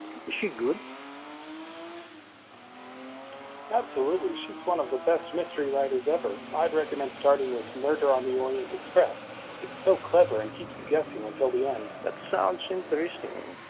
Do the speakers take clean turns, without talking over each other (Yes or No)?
Yes